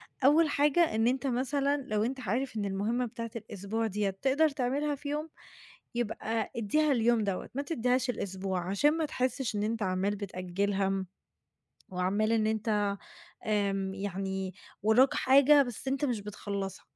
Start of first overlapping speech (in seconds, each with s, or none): none